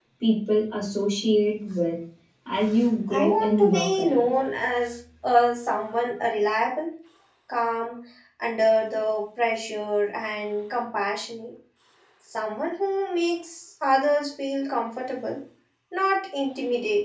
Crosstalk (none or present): present